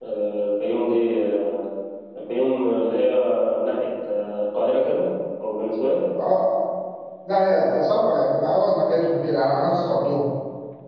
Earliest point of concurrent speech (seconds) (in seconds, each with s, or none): none